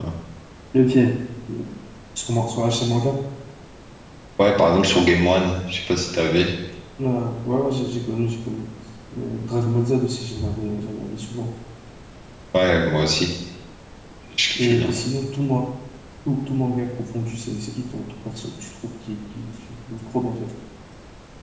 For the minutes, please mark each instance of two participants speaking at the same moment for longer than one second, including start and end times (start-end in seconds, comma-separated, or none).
none